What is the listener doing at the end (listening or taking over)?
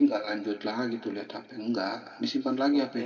taking over